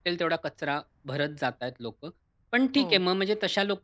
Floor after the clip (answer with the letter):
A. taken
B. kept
B